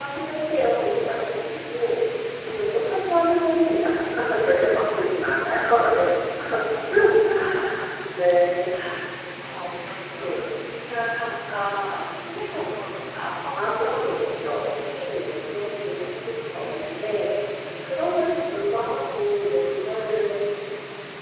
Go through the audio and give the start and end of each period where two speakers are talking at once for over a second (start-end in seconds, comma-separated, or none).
13.6-15.1